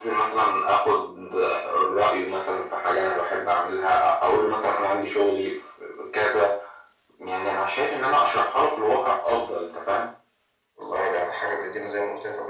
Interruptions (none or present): none